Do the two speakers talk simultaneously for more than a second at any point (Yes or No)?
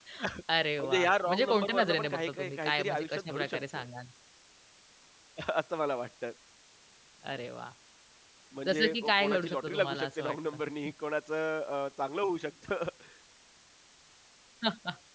Yes